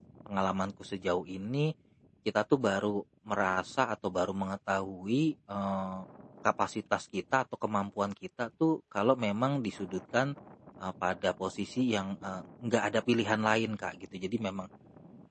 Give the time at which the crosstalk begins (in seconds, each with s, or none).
none